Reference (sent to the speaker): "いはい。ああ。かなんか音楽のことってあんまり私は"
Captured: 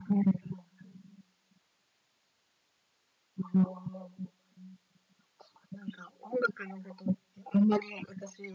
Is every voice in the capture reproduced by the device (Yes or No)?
Yes